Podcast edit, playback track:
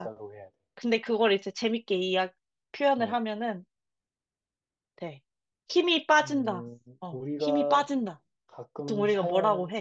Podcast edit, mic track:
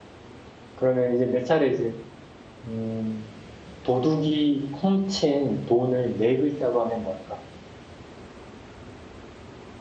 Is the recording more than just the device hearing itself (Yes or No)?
Yes